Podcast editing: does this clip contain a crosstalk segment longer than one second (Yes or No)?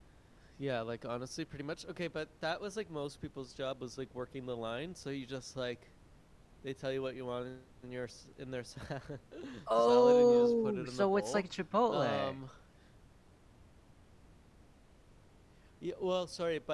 Yes